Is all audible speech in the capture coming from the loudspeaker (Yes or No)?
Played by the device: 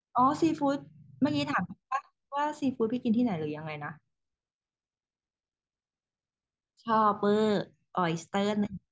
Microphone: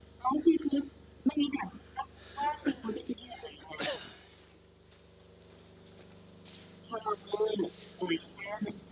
Yes